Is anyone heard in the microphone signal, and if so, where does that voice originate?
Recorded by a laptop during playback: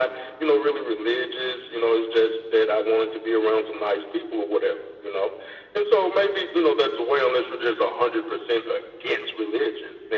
echo only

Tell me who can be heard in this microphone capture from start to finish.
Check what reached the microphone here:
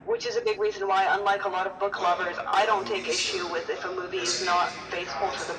both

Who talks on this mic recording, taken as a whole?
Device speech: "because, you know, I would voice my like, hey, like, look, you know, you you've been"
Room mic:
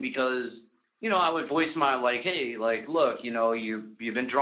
echo only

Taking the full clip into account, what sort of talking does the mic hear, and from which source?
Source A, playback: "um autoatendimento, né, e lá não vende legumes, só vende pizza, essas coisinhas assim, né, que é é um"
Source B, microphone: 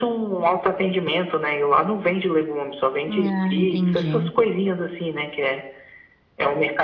both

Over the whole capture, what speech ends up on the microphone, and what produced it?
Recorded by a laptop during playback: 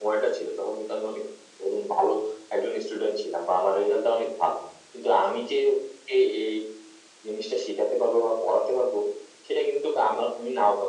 echo only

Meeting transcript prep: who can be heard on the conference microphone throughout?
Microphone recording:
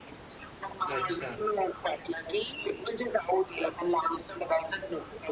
both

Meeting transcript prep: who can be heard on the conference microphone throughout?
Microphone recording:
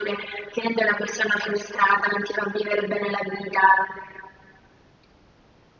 echo only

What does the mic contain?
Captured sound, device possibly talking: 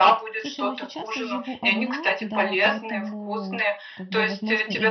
both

